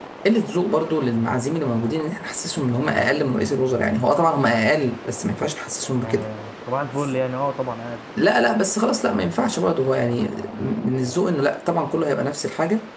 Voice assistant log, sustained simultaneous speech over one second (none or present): none